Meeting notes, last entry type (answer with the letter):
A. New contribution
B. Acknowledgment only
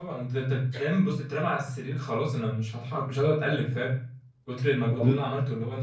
B